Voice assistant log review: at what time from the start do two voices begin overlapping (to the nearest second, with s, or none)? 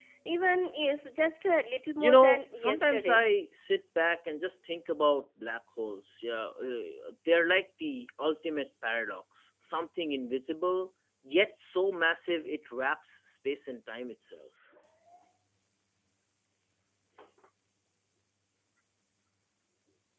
2 s